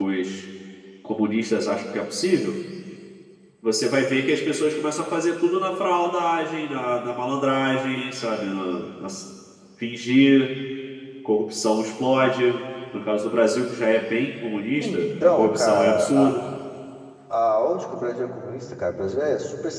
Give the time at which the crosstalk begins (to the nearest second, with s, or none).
15 s